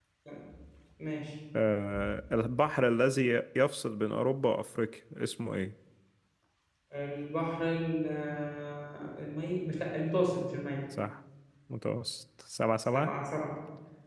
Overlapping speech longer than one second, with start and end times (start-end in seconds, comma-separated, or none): none